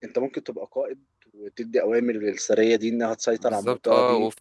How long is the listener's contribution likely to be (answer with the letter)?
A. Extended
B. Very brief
A